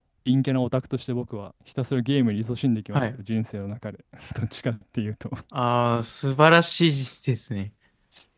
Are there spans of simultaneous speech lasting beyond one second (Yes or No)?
No